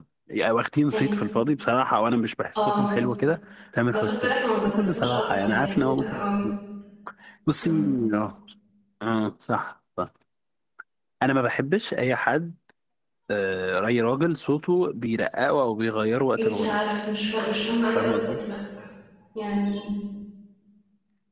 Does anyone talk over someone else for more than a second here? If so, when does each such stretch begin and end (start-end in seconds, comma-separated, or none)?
4.7-6.0